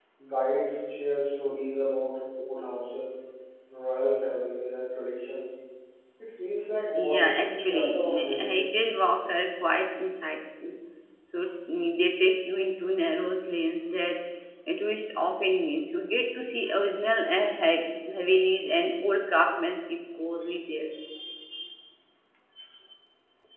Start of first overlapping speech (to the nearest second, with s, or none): 7 s